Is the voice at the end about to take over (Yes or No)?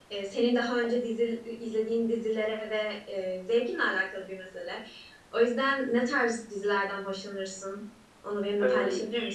Yes